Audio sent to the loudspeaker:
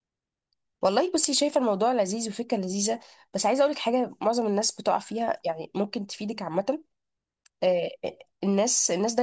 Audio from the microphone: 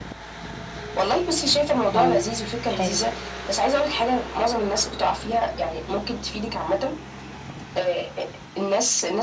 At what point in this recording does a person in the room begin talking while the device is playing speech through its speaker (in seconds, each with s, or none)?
1.9 s